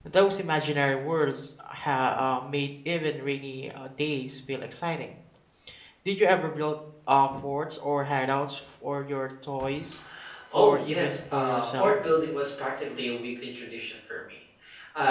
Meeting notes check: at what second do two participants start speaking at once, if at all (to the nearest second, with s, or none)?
11 s